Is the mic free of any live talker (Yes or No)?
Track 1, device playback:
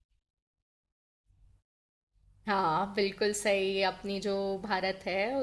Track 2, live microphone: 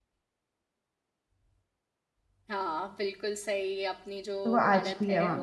No